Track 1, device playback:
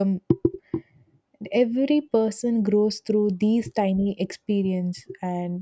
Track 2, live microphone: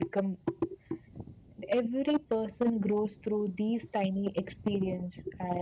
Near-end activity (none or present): none